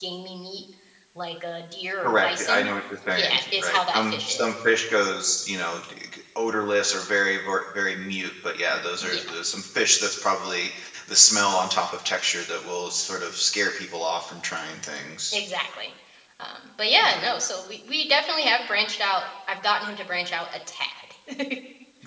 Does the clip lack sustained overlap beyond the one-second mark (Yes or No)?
No